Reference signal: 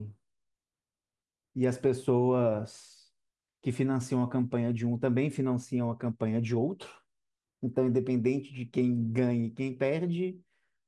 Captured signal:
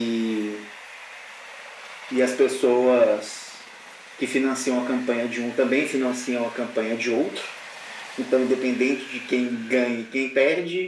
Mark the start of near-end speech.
none

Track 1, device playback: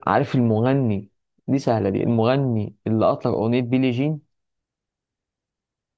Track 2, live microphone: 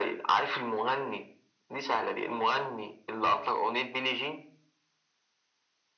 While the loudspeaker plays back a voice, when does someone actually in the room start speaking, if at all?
none

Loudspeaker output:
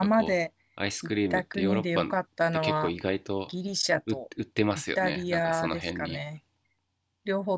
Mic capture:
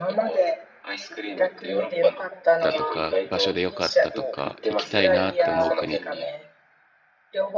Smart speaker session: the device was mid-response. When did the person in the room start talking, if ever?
2.6 s

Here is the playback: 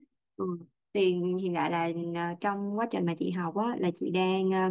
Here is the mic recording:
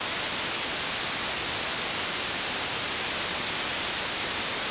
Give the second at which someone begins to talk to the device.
none

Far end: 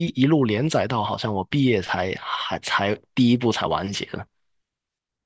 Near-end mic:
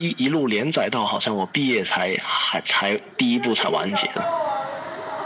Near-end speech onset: 2.9 s

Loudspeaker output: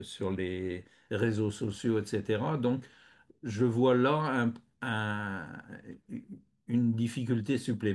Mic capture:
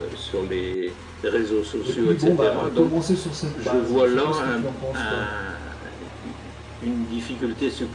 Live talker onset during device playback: 1.9 s

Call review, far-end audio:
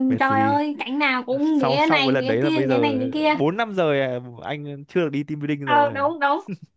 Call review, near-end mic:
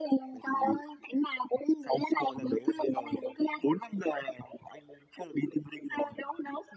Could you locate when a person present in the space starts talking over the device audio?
none

